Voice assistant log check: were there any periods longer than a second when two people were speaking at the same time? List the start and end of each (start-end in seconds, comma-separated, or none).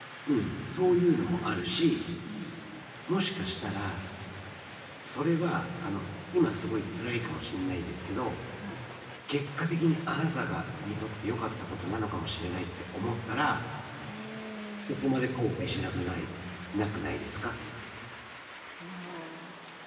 14.8-16.1